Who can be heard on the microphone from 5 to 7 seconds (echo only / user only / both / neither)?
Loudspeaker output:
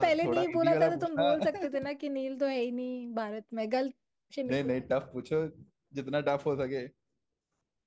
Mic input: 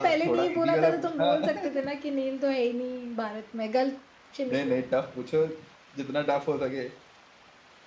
echo only